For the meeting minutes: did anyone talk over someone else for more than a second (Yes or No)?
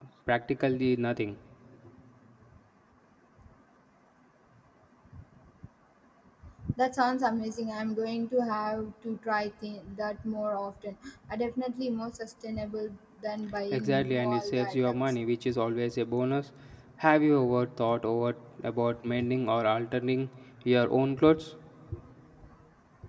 Yes